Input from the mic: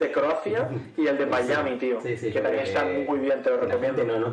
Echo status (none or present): present